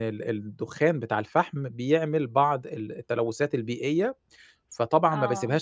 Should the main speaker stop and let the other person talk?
No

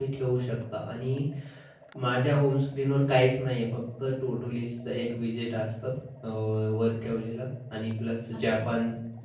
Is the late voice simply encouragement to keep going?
Yes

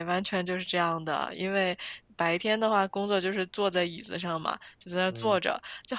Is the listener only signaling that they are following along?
Yes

